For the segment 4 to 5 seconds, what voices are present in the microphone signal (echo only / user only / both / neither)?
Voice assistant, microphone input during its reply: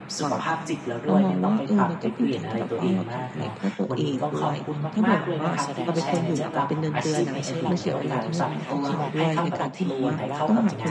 both